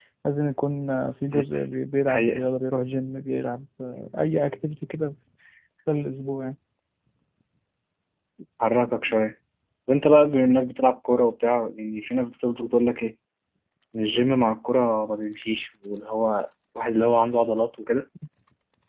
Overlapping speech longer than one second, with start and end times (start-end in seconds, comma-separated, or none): none